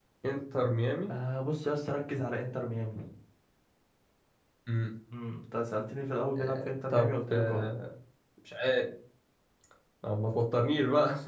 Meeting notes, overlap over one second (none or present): present